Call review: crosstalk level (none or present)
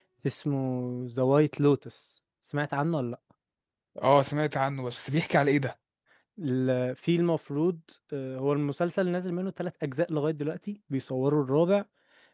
none